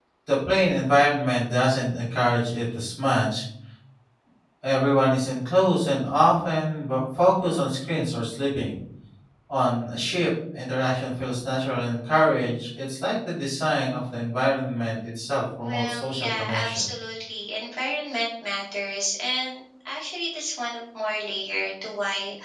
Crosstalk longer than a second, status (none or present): present